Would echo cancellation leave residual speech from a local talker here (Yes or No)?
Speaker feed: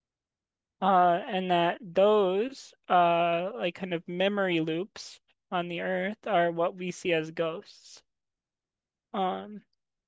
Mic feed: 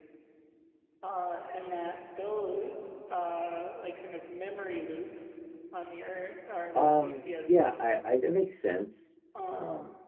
Yes